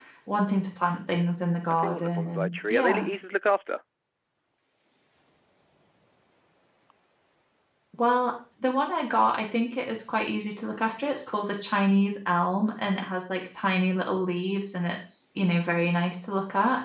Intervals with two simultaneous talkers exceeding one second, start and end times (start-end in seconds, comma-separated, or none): 1.7-3.1